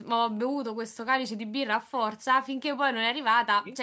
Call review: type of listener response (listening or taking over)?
listening